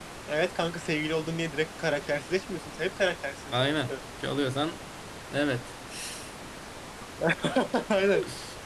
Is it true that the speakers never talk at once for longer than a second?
Yes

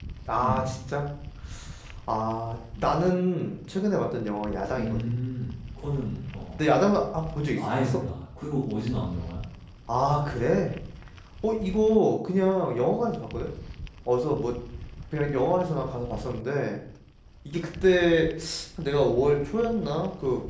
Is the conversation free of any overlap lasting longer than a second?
Yes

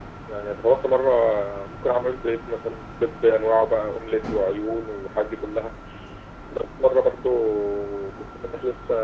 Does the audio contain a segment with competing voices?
No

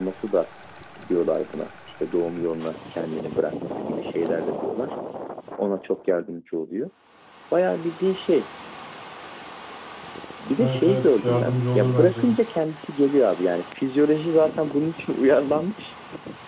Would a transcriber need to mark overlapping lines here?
Yes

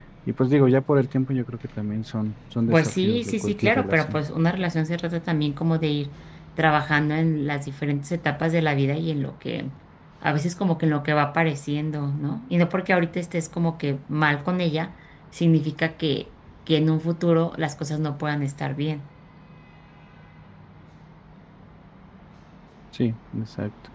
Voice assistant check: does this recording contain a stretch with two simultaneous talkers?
Yes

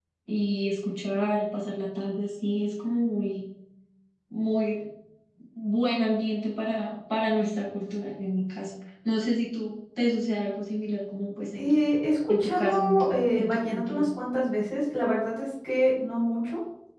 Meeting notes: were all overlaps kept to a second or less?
No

